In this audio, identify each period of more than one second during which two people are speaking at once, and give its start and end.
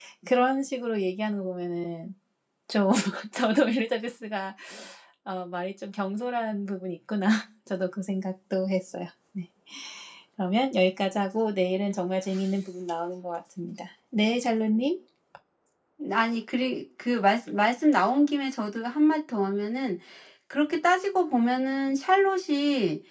none

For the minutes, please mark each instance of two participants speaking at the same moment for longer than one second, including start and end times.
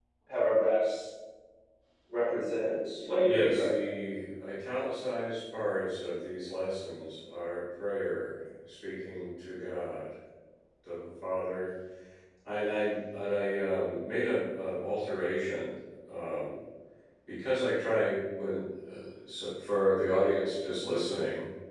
none

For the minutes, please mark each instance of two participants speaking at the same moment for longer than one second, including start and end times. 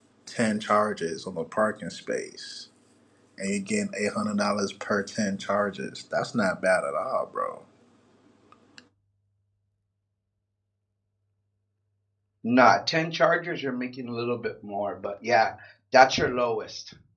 none

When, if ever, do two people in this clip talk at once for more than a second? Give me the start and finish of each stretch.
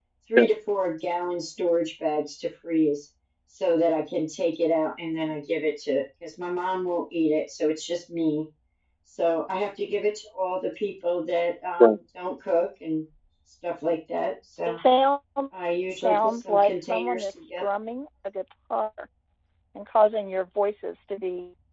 16.0-17.6

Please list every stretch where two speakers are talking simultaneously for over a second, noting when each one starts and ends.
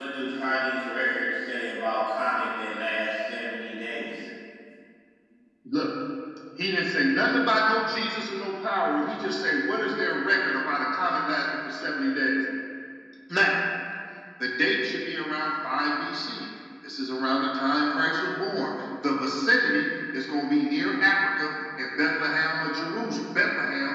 none

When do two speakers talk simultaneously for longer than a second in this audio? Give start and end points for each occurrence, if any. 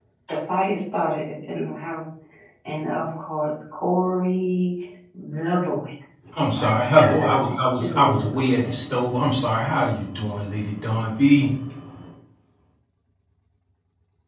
7.1-8.8

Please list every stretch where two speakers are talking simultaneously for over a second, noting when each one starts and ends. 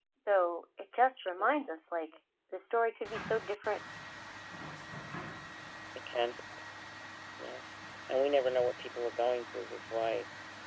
none

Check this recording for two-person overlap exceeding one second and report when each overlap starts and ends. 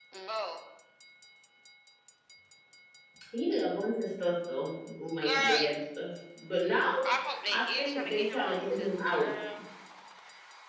7.5-9.2

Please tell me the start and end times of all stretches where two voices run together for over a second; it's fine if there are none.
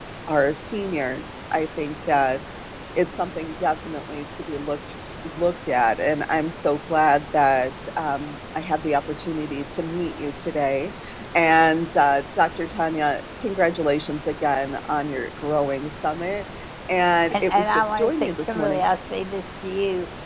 17.3-18.8

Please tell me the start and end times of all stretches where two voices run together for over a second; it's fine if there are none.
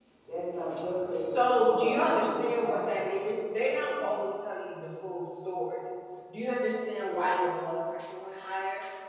1.1-3.0

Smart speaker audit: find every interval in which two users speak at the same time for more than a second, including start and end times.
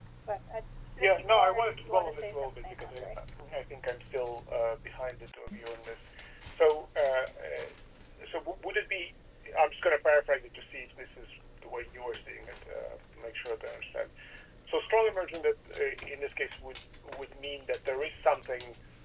1.0-3.1

